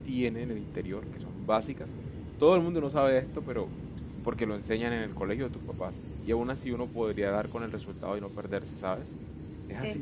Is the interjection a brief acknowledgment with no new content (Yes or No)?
No